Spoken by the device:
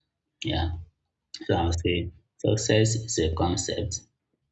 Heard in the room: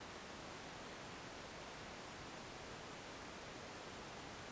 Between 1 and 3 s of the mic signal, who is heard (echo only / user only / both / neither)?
neither